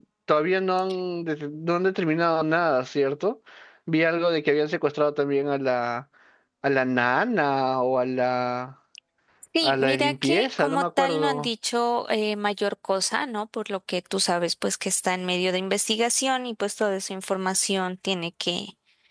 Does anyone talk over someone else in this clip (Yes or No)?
Yes